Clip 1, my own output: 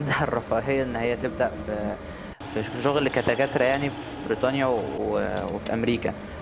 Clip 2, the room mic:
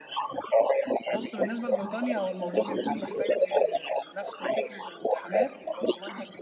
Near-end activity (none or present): present